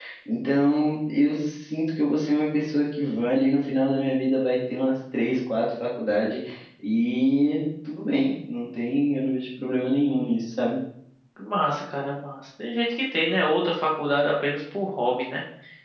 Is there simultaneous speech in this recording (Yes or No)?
No